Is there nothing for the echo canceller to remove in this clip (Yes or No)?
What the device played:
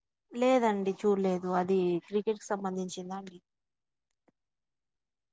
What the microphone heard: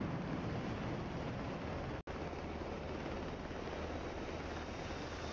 Yes